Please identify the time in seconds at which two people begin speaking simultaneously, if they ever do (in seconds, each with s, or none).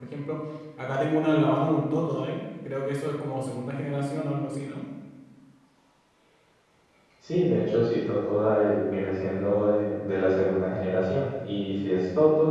none